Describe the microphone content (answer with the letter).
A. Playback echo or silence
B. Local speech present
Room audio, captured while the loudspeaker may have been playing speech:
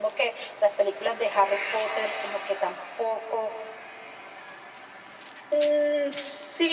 A